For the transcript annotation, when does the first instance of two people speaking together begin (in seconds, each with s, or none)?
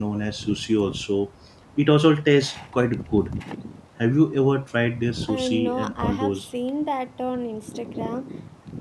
5.2 s